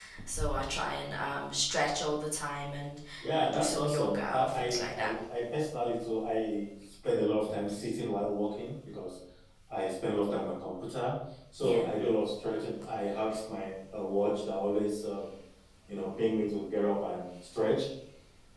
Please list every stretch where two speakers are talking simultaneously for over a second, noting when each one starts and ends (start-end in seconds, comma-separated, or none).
3.4-5.1